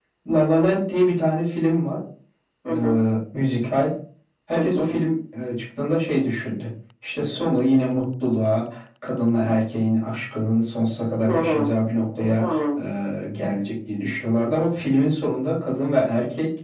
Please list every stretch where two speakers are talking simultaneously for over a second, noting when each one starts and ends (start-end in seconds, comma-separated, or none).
none